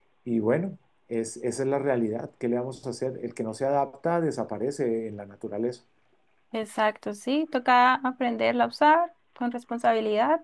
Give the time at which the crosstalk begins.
none

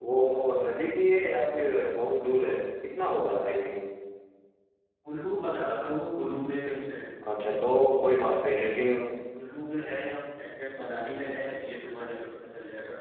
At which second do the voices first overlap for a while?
none

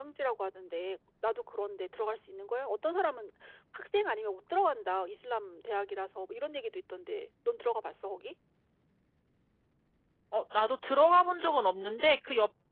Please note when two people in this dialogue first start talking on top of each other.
none

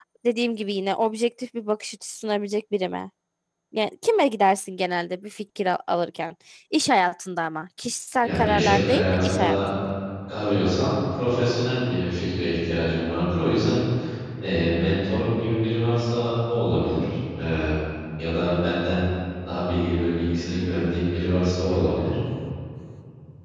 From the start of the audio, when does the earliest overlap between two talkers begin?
8.2 s

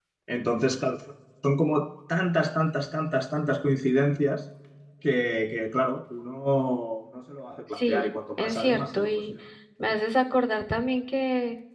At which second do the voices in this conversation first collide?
7.8 s

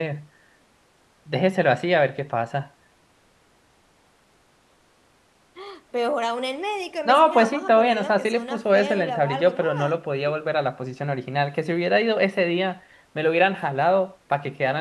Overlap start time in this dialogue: 7.0 s

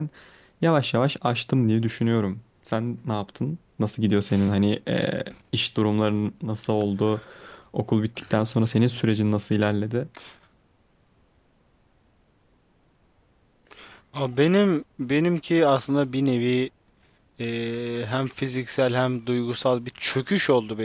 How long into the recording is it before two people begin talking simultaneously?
none

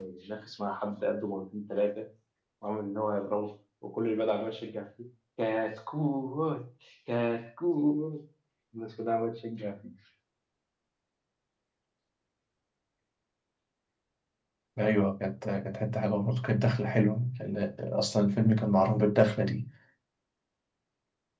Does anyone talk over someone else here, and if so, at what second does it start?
none

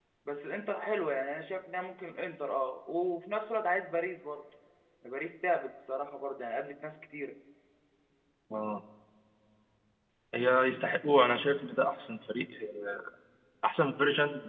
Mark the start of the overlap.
none

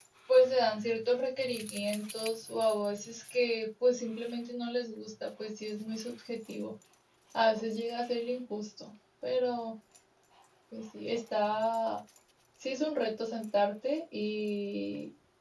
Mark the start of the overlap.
none

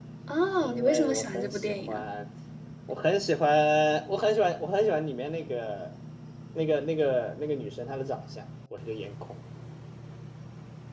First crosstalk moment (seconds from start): 0.6 s

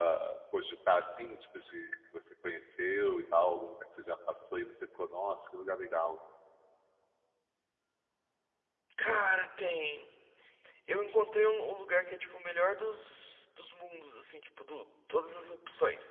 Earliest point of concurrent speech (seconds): none

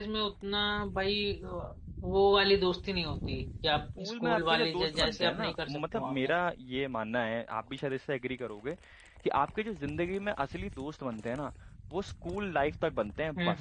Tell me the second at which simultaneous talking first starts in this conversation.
4.0 s

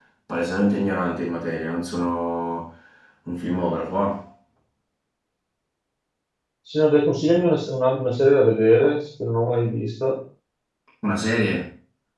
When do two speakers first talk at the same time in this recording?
none

